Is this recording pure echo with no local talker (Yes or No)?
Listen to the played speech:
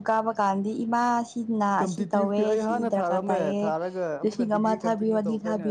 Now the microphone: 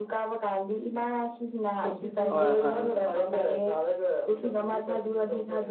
No